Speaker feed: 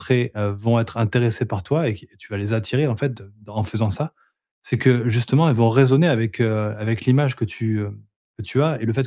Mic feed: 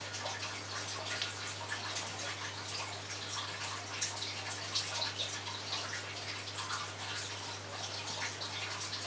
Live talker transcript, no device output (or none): none